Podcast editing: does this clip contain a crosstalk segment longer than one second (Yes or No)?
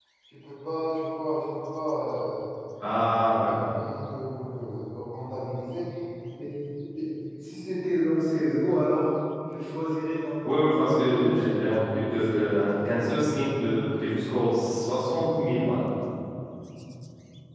Yes